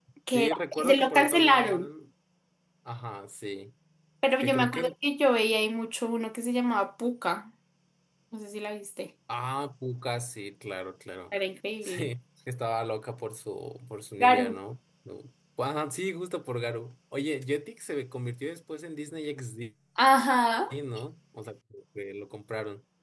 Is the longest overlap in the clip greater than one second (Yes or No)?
Yes